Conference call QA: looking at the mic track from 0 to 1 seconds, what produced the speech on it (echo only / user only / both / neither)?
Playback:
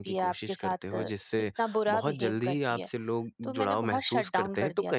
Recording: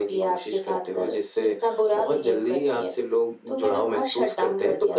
echo only